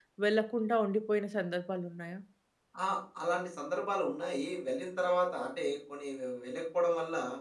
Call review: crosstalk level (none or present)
none